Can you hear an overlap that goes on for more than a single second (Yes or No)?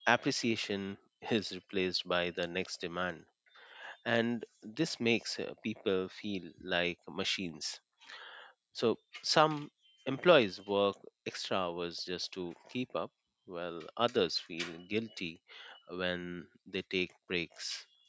No